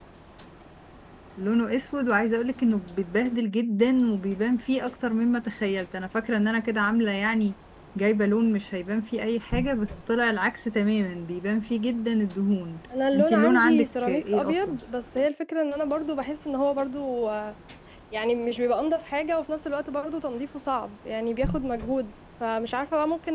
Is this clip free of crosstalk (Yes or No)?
No